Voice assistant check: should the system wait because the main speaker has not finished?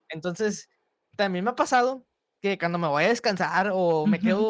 Yes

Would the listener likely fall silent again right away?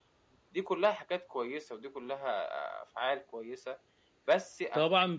No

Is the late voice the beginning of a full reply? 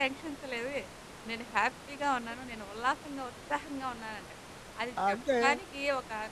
No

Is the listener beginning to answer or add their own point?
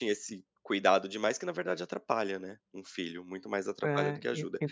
Yes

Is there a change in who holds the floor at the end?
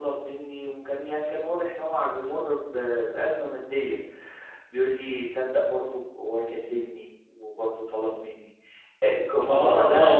Yes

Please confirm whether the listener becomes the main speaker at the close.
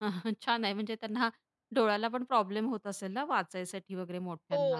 Yes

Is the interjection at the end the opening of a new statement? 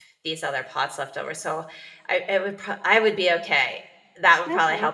Yes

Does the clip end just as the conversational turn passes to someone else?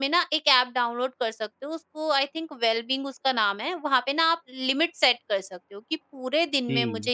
No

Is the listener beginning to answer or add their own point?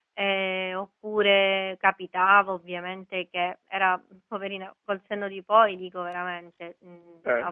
No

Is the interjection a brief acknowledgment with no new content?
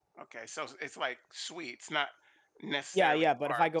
No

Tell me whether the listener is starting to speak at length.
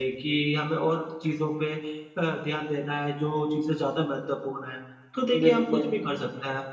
No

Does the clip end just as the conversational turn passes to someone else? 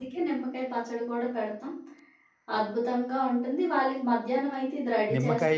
Yes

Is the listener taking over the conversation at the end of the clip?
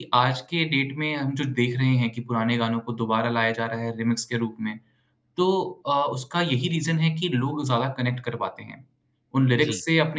No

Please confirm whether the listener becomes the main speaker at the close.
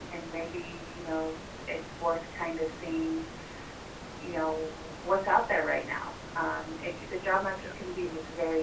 No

